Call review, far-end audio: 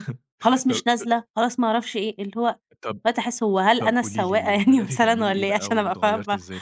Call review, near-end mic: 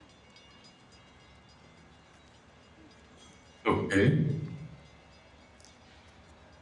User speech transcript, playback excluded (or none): اوكي